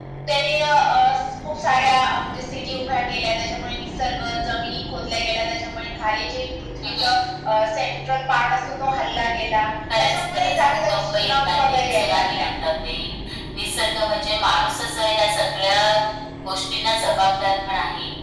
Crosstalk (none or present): present